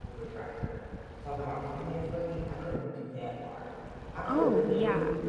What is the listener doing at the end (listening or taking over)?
listening